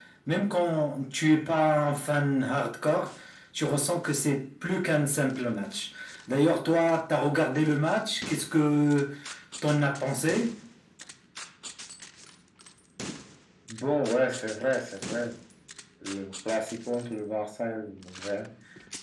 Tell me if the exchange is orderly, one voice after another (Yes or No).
Yes